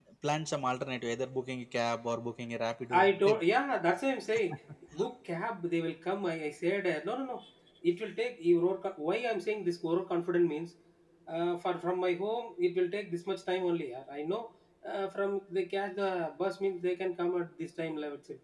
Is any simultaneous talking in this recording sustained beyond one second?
No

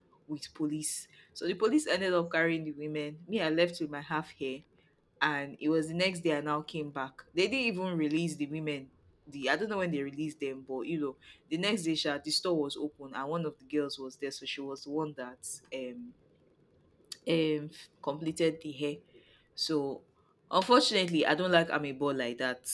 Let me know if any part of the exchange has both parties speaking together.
No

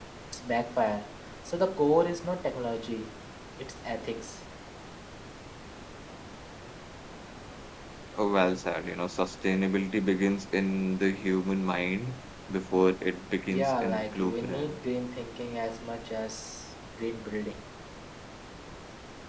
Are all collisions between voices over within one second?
No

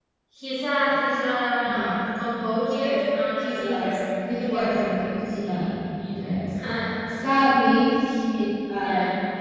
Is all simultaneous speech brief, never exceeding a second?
No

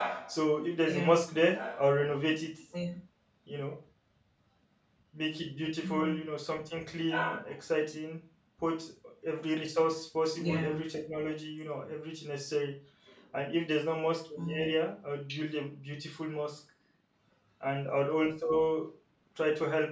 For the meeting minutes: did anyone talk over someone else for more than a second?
No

